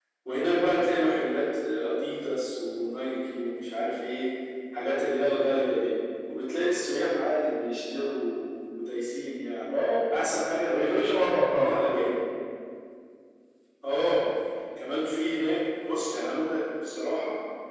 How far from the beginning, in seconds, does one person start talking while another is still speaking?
11 s

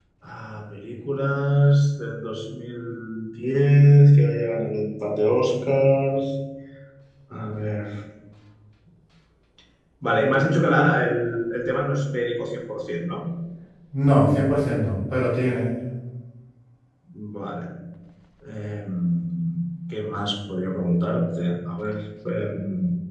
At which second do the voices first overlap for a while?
none

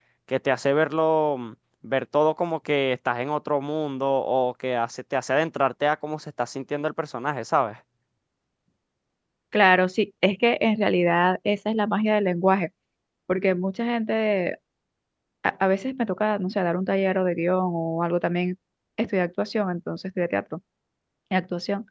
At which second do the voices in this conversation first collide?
none

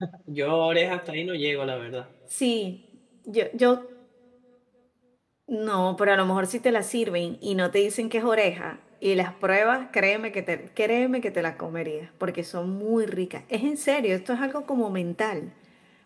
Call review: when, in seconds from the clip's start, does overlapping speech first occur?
none

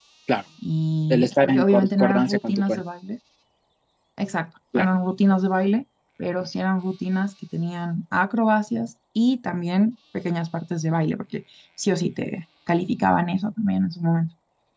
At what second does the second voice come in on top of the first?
1 s

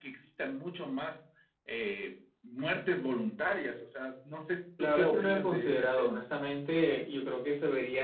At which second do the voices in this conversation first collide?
5 s

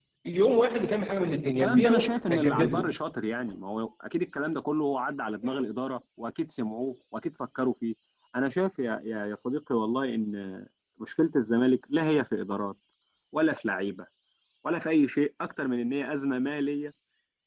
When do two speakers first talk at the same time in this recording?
2 s

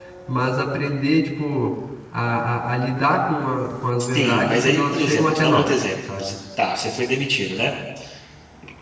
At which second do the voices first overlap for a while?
4 s

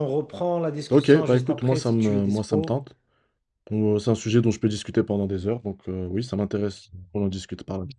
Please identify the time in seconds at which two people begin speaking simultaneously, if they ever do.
1 s

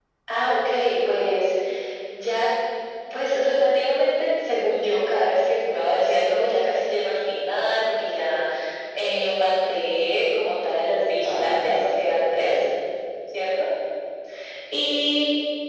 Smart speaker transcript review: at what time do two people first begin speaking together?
11 s

